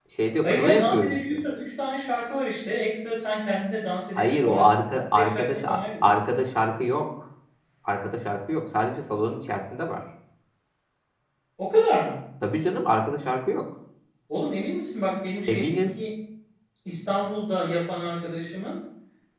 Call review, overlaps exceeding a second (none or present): present